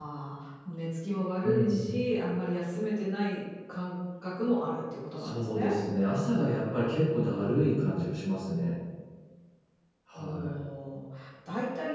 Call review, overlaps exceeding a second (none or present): none